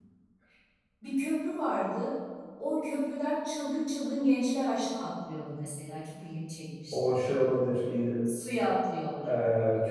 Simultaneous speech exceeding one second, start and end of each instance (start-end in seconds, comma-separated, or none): none